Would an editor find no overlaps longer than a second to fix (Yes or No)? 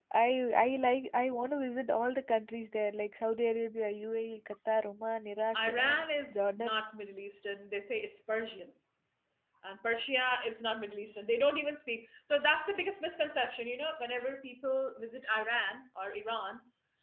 No